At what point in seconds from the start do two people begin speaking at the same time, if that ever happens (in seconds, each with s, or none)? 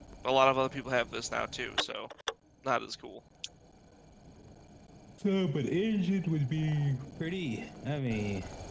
none